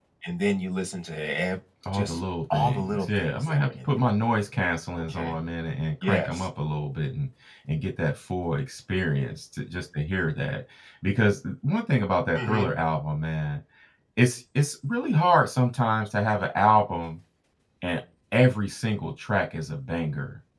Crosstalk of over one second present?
Yes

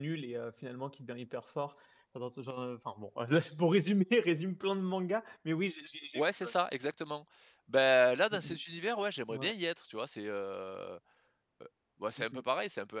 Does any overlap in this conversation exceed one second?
No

